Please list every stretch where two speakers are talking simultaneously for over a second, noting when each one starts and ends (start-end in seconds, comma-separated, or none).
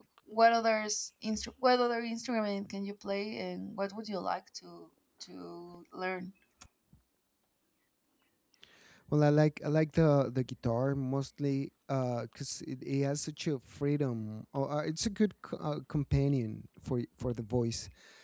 none